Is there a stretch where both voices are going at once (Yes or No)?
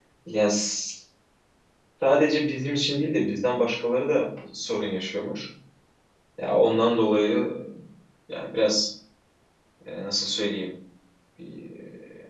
No